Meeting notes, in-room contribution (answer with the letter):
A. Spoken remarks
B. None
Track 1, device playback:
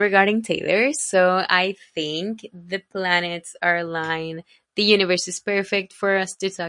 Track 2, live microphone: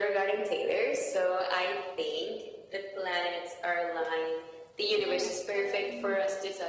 A